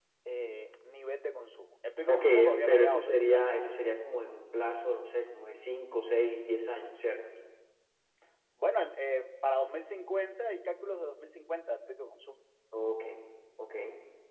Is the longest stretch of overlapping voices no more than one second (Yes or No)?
No